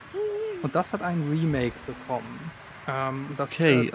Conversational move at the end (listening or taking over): taking over